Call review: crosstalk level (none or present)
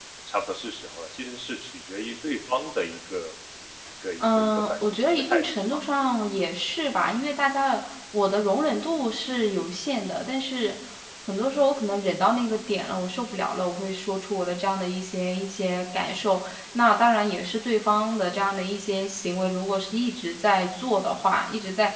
present